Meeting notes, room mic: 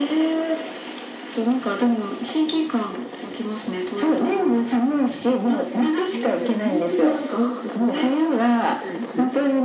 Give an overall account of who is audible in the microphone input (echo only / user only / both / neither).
both